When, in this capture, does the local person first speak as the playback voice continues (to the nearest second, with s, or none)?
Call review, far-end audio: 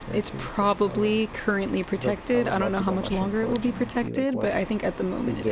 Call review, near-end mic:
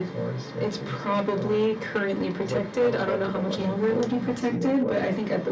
none